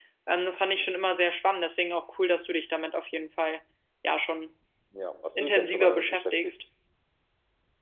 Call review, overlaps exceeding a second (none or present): present